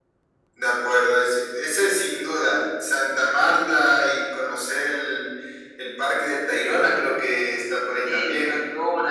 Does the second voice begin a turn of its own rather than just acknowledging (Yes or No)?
Yes